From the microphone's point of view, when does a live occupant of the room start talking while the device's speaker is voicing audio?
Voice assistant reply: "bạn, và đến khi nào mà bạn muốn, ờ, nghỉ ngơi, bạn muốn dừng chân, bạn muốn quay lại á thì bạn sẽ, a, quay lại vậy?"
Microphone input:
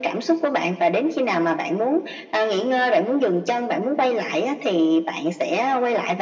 none

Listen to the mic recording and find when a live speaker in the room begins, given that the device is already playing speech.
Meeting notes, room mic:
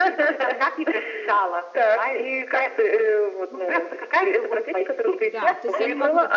5.2 s

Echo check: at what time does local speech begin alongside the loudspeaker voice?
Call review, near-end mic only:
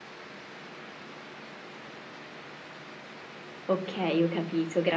3.7 s

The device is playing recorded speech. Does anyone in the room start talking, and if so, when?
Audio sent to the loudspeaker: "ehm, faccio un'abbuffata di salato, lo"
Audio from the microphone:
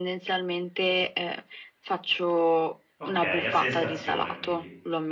3.0 s

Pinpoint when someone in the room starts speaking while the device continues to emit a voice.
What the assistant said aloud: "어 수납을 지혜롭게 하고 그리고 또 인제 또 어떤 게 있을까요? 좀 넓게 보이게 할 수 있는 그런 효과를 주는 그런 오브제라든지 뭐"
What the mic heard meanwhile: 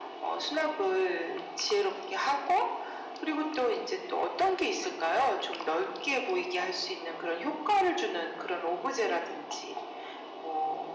none

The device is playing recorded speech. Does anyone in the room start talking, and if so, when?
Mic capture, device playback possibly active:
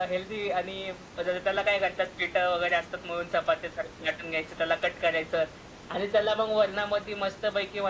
none

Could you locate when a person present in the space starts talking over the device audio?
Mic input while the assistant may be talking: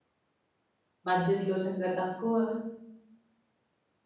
1.1 s

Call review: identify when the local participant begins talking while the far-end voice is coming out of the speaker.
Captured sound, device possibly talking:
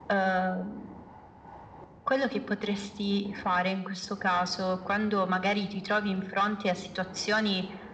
none

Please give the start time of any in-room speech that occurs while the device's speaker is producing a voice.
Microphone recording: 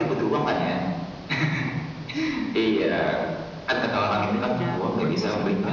4.0 s

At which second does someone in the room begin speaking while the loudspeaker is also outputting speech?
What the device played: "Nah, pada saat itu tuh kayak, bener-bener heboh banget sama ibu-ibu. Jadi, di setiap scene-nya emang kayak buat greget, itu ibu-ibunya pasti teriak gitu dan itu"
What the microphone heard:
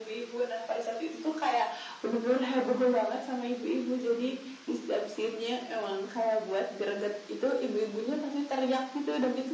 none

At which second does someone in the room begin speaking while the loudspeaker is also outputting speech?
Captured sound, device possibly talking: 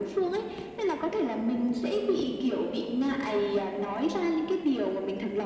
none

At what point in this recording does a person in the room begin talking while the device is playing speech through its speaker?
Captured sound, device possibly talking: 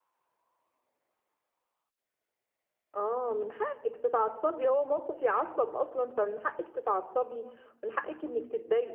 3.0 s

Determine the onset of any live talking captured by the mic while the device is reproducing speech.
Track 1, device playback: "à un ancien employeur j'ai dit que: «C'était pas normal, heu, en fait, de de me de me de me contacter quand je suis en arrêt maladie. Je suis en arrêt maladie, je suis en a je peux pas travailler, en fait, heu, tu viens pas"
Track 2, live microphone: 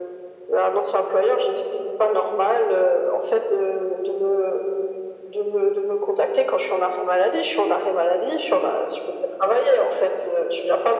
none

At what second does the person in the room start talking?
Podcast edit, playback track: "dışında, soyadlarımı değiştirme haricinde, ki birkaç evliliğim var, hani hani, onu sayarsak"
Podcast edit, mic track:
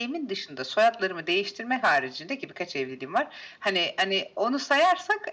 none

